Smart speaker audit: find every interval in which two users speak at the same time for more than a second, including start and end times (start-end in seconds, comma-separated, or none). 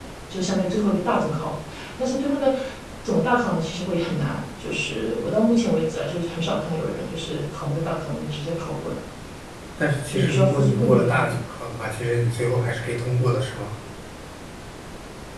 10.1-11.3